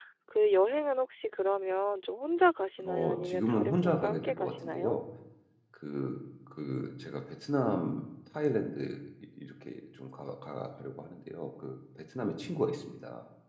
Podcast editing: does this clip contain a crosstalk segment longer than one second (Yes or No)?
Yes